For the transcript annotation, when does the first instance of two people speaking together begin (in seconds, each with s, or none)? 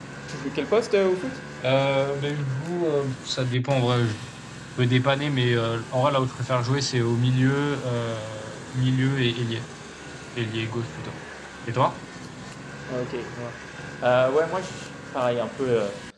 none